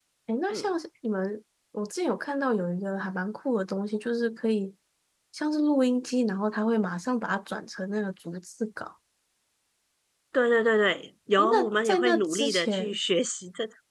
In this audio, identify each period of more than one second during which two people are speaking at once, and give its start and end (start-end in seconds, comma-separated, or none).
11.4-13.0